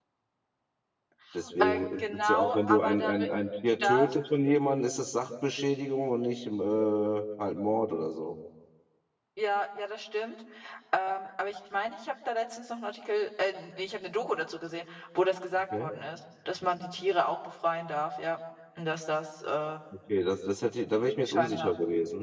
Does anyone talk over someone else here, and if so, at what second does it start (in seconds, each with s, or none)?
1.6 s